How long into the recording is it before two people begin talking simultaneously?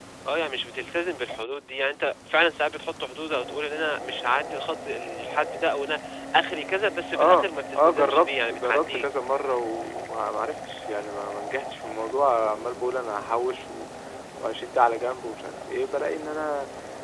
7.1 s

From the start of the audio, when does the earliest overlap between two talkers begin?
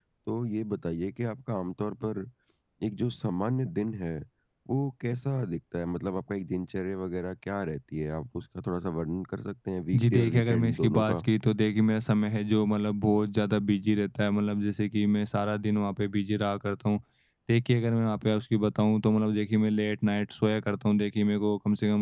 9.9 s

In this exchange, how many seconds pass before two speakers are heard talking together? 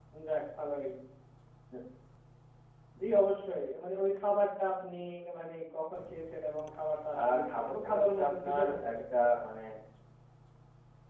7.1 s

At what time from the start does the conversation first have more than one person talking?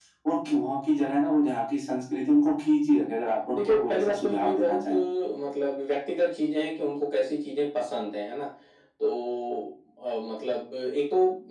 3.6 s

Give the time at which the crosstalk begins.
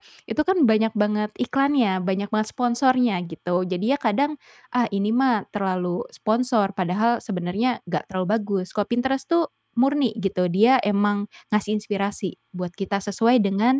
none

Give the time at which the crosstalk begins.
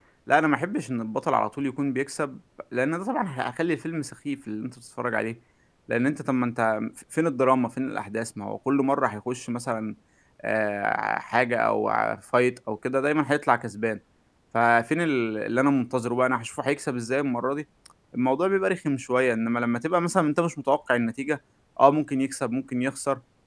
none

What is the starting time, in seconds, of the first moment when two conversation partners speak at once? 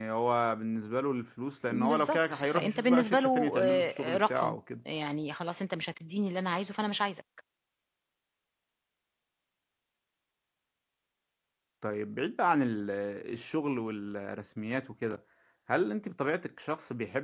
1.7 s

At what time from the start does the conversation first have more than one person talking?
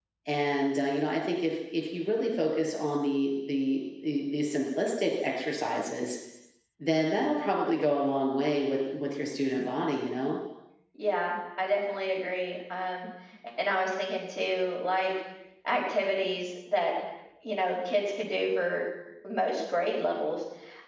none

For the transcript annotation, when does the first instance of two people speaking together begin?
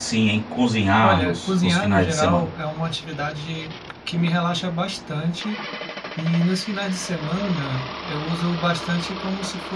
1.0 s

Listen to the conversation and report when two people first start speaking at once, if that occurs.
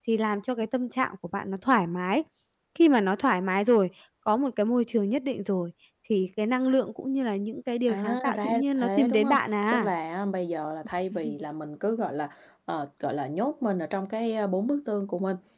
7.9 s

